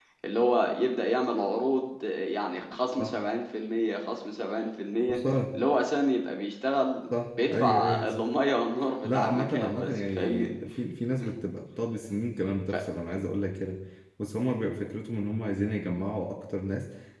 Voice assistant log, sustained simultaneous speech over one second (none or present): present